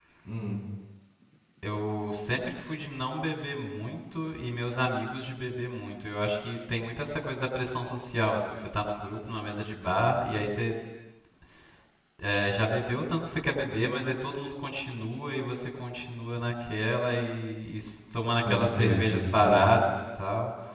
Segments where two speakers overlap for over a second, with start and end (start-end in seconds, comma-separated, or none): 18.4-19.7